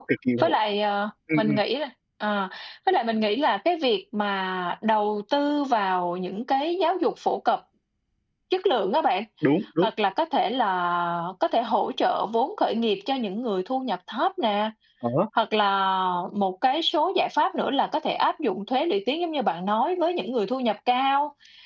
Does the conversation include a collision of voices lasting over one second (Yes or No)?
No